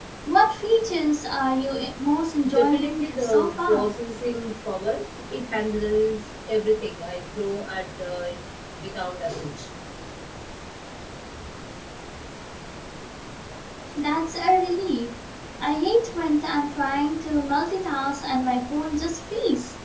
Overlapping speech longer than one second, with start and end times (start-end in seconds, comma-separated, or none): 2.6-3.9